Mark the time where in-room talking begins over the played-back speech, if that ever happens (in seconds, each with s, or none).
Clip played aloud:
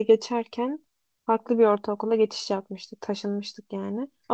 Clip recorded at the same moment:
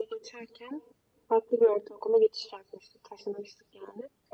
none